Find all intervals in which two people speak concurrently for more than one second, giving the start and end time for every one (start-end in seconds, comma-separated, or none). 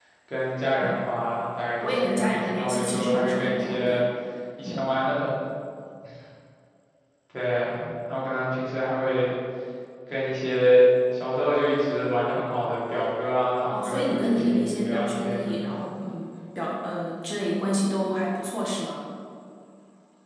1.8-4.0, 13.7-15.8